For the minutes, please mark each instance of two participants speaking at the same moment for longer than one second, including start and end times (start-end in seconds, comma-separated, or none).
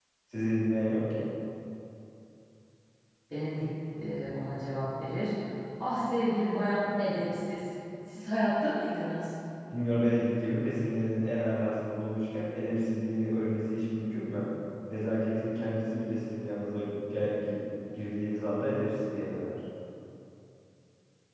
none